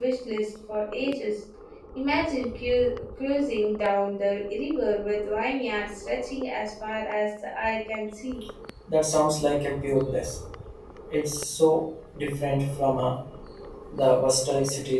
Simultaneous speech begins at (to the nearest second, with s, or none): none